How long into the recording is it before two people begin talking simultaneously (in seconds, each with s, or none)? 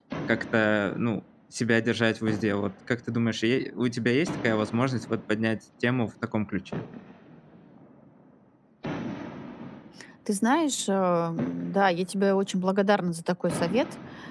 none